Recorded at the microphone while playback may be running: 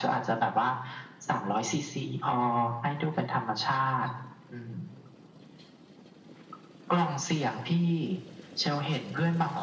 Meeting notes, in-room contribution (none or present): none